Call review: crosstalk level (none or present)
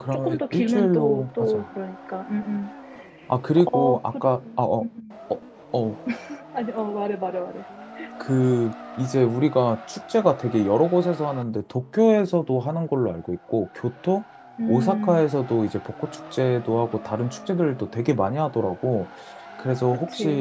present